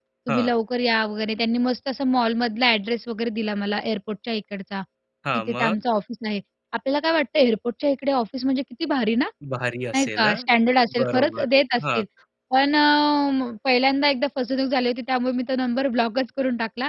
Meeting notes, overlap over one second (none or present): none